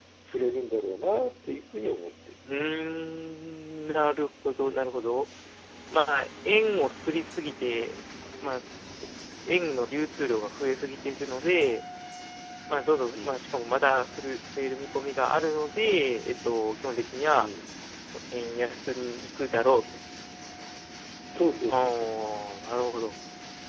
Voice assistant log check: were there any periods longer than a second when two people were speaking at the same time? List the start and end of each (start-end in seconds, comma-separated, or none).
none